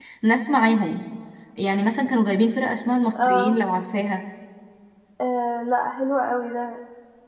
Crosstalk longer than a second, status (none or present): none